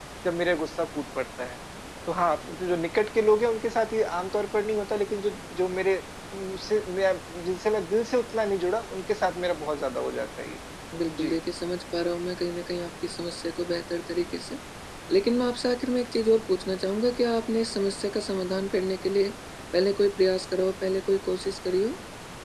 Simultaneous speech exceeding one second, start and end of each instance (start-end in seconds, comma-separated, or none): none